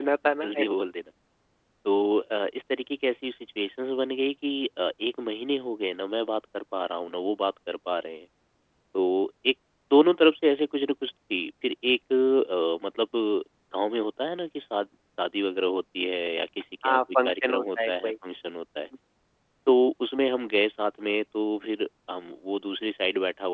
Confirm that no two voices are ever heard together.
No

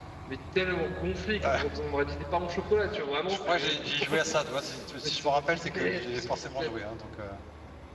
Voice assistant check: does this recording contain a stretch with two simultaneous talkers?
Yes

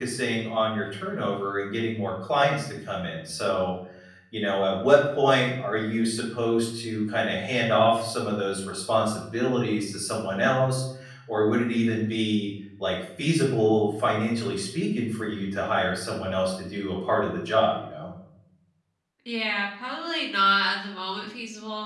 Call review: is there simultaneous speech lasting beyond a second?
No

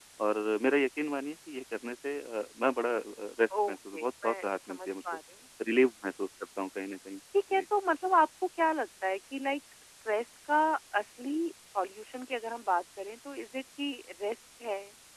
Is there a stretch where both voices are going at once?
Yes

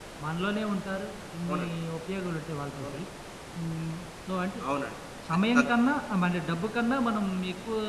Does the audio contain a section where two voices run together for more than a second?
No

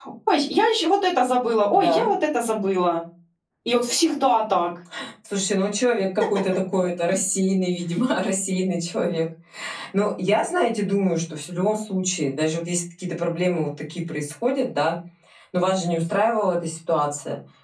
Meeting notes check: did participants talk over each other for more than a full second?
No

